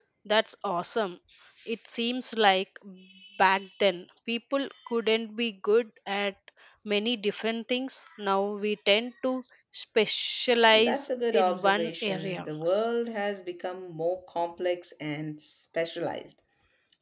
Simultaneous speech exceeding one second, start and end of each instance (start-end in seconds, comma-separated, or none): 10.7-12.4